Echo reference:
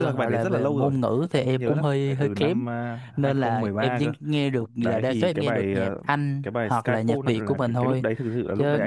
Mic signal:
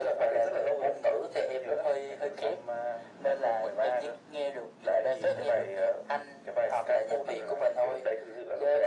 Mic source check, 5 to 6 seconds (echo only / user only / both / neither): both